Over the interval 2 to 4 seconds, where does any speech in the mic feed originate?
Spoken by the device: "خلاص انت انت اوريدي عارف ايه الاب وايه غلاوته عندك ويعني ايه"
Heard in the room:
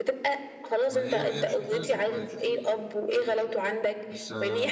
both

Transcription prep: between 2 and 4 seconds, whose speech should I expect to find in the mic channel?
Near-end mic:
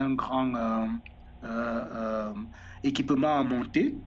user only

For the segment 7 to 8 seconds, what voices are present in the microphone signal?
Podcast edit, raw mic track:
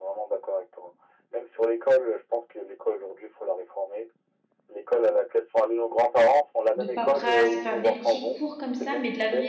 both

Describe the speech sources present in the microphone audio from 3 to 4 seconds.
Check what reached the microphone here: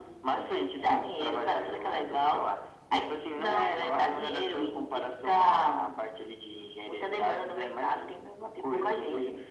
echo only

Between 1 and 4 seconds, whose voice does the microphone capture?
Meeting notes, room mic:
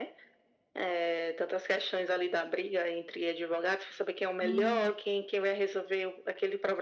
echo only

